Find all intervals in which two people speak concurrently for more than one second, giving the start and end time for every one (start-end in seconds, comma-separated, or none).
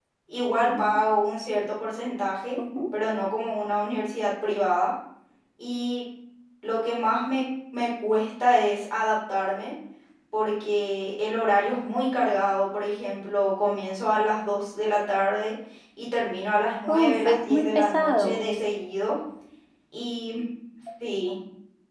16.9-18.4